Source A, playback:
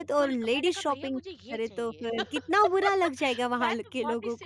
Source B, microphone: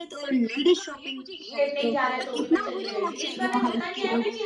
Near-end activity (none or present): present